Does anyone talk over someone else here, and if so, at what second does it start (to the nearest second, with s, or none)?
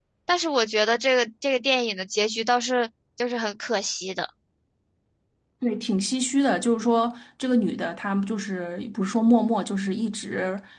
none